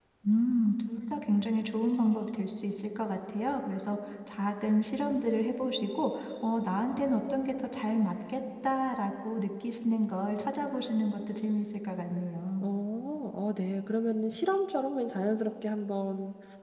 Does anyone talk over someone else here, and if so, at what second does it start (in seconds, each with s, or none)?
none